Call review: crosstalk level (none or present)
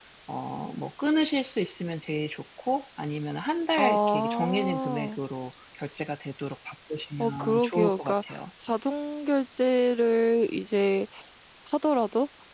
present